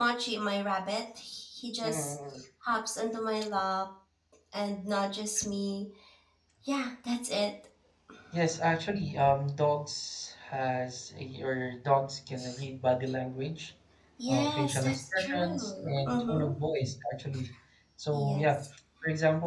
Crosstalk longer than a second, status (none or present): present